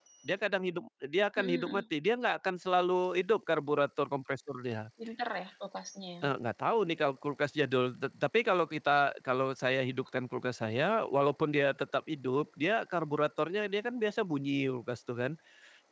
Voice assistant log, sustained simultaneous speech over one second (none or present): none